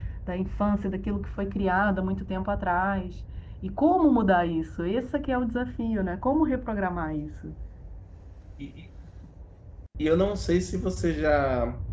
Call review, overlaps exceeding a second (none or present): none